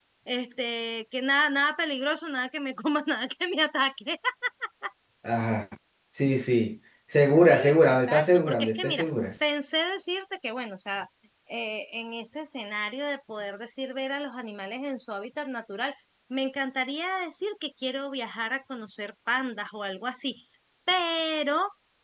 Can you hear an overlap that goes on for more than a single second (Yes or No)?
Yes